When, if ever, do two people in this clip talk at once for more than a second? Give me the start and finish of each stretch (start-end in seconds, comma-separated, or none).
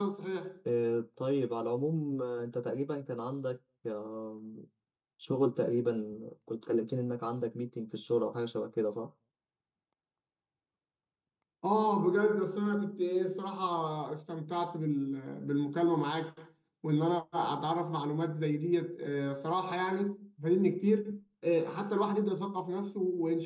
none